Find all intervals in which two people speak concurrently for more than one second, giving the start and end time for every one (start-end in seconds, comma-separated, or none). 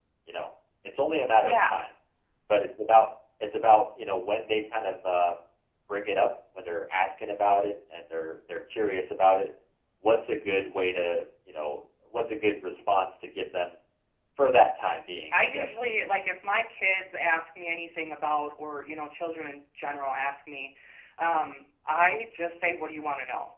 none